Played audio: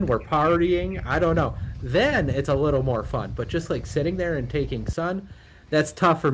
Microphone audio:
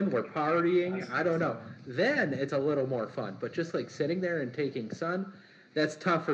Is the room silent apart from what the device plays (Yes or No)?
No